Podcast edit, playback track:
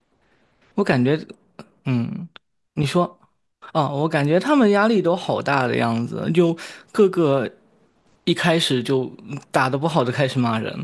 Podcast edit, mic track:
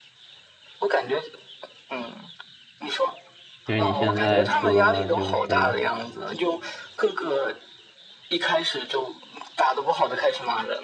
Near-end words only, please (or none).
其实你现在说的话，就是